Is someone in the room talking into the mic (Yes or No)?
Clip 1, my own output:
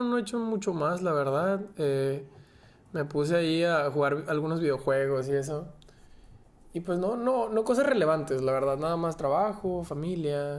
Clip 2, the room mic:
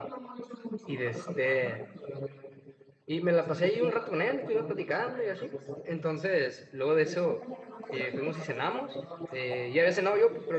Yes